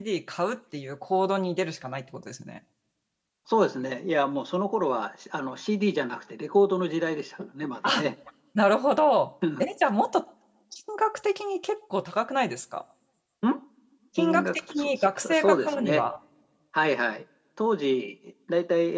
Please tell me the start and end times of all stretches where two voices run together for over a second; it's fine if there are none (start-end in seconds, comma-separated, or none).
14.2-16.1